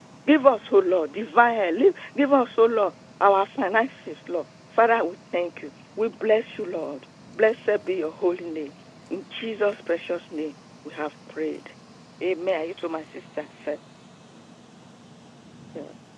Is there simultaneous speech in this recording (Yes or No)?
No